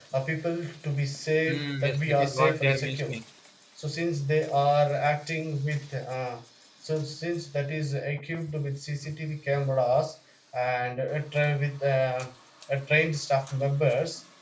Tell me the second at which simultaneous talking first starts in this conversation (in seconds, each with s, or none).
1.5 s